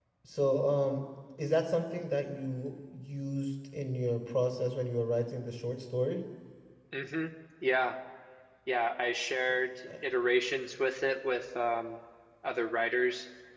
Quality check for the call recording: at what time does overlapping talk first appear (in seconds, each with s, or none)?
none